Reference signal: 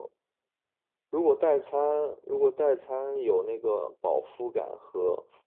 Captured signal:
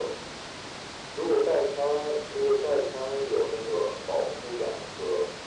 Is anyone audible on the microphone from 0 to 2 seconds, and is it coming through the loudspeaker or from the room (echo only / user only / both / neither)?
echo only